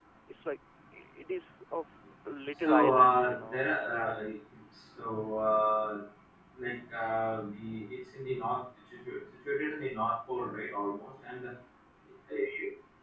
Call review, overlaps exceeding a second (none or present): present